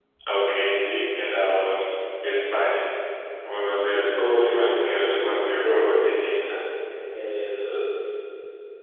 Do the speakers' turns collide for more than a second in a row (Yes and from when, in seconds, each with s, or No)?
Yes, from 4.2 s